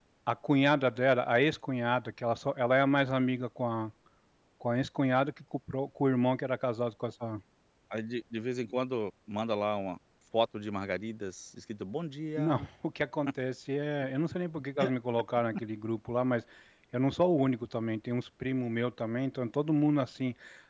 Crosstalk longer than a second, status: none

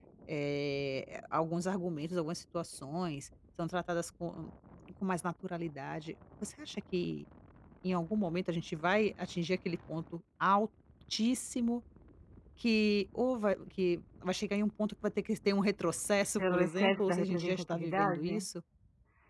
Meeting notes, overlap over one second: present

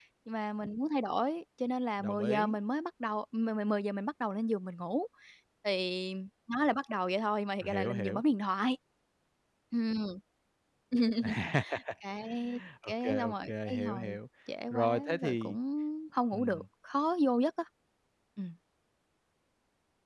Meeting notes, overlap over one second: present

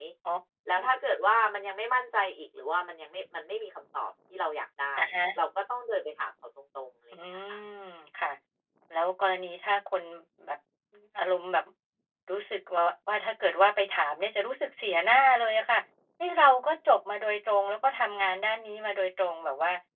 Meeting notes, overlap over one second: none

